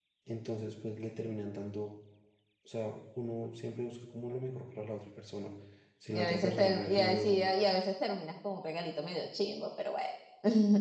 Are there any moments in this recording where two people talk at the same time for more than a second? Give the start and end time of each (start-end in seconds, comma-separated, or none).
6.1-7.5